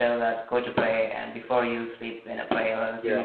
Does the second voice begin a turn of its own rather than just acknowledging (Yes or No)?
No